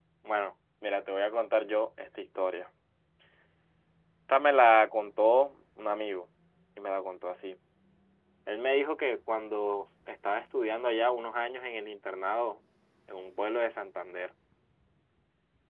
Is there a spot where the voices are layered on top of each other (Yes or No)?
No